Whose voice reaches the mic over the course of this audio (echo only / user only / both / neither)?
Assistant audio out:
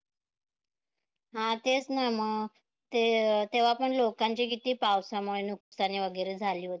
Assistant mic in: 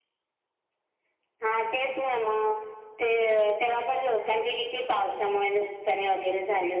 echo only